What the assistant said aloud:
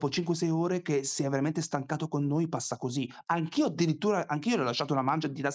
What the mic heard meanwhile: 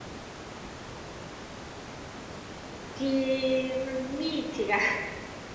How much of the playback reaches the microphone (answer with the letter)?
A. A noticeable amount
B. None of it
B